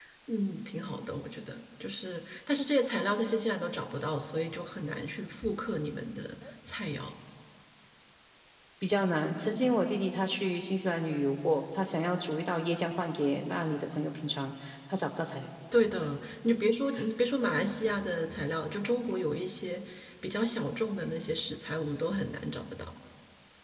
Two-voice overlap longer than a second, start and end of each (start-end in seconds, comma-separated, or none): none